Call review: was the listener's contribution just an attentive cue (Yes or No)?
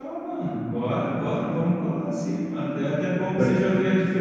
Yes